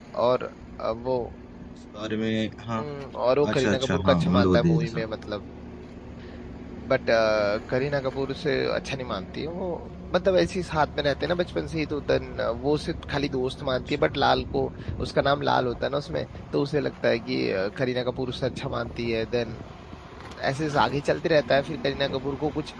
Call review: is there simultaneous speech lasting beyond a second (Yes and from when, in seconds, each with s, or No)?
Yes, from 3.5 s